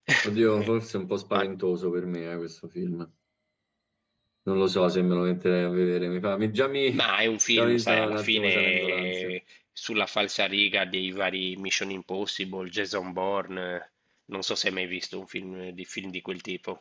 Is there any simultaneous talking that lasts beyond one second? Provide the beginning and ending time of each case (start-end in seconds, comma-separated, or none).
7.5-9.3